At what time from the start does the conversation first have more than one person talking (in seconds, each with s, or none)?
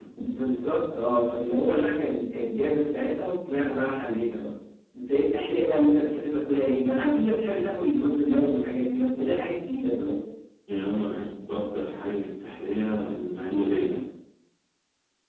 none